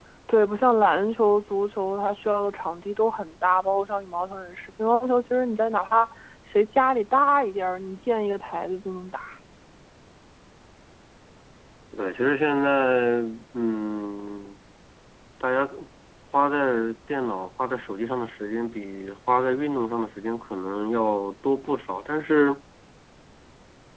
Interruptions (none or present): none